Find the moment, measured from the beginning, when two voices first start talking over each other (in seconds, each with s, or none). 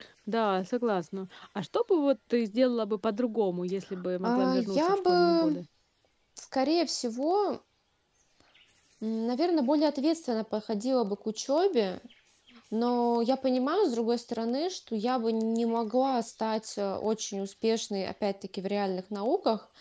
4.2 s